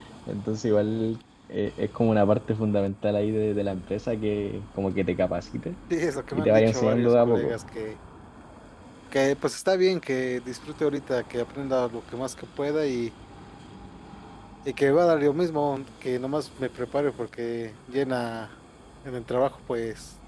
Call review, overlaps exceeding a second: present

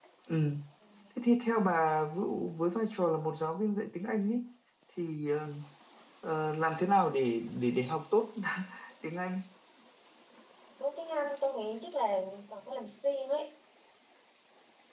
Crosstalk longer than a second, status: none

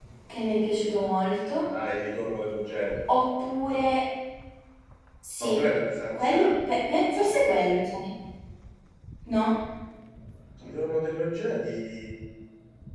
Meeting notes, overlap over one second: none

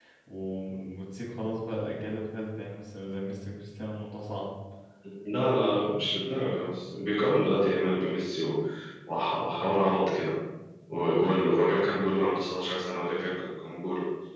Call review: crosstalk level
none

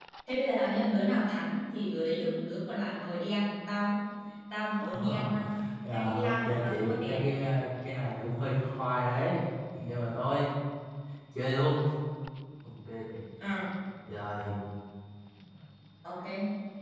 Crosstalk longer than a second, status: present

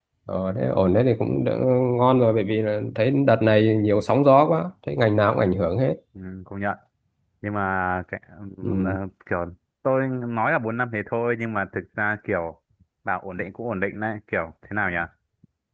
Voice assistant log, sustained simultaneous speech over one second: none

